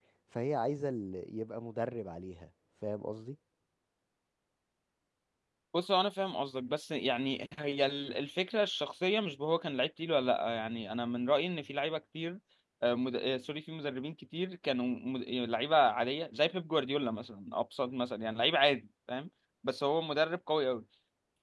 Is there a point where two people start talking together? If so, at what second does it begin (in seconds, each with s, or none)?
none